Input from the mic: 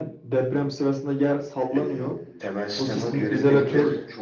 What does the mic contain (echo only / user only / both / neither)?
both